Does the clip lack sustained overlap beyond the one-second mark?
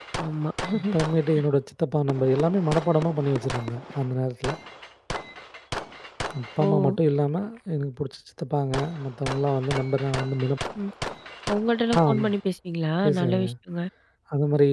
Yes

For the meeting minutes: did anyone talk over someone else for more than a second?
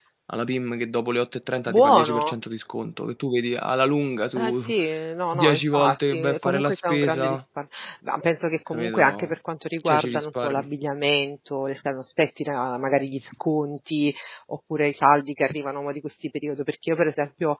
Yes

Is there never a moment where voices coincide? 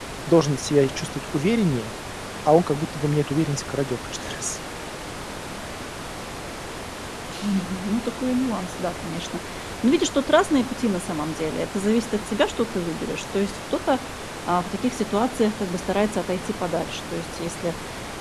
Yes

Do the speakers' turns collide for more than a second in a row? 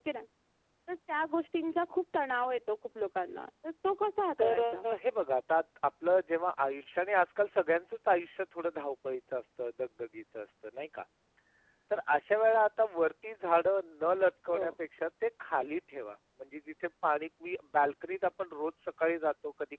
No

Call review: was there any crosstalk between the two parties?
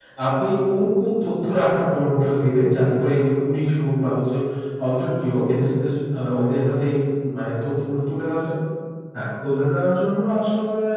No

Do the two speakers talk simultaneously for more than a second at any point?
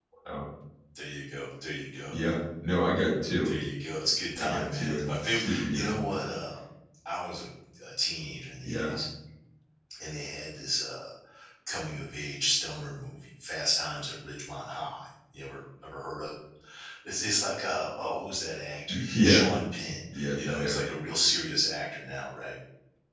Yes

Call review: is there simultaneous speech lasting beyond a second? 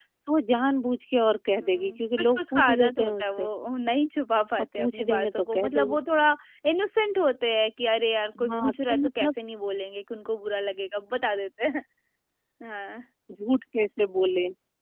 Yes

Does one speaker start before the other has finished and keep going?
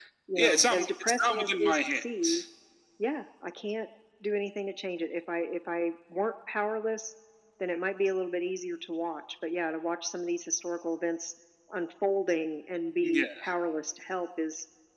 Yes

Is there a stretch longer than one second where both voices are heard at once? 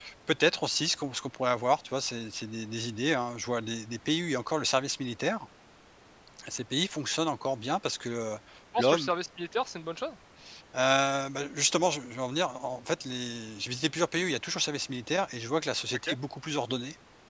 No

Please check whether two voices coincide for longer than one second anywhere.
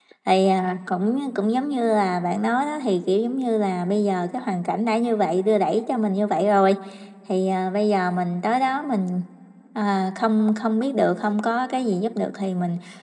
No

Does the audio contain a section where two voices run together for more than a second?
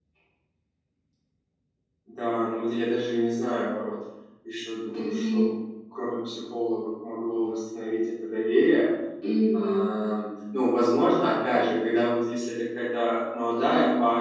No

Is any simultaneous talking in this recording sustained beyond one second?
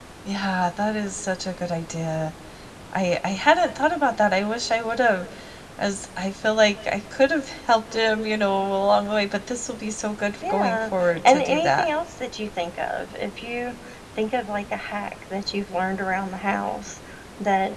Yes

